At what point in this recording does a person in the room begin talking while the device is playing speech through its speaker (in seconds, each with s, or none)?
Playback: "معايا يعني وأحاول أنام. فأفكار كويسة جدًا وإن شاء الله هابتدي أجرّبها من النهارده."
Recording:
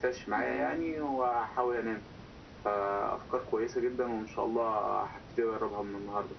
0.4 s